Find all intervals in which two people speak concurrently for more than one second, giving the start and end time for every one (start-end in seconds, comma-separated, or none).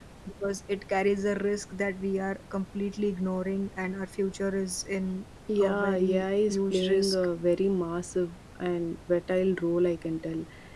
5.6-7.2